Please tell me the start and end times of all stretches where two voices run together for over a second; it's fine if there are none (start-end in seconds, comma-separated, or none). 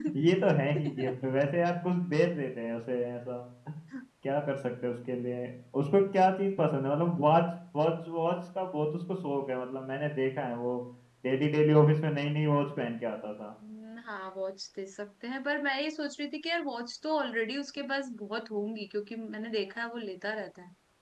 none